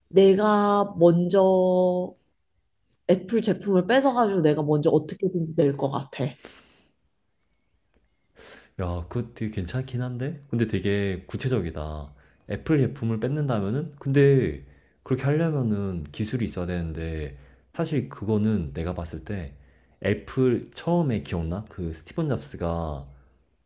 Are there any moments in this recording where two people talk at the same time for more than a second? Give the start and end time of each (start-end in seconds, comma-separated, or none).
none